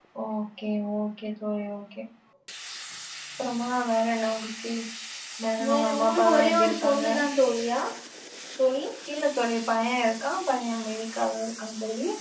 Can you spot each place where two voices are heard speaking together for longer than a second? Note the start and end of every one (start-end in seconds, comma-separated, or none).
5.7-7.1